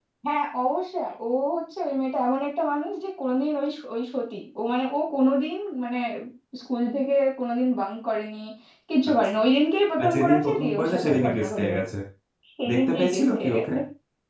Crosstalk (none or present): present